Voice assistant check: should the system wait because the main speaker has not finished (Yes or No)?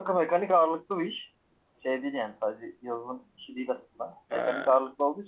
Yes